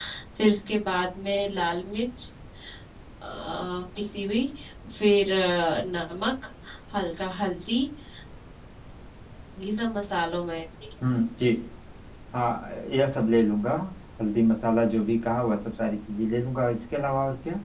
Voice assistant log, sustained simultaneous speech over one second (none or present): none